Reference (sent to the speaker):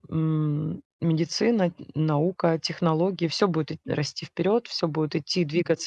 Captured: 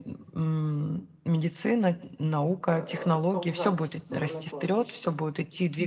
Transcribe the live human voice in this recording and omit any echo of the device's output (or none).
э, отползать в сторону кладбища.